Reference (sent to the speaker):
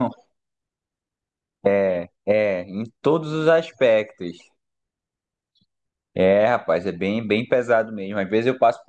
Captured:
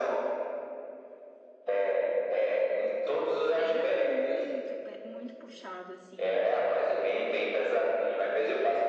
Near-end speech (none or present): present